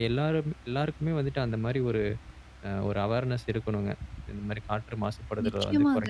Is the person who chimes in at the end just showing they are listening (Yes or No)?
No